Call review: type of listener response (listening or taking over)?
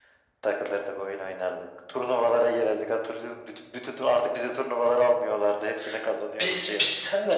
taking over